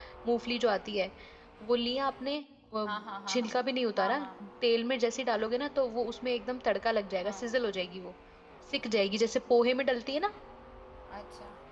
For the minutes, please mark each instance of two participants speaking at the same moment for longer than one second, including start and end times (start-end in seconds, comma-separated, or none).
none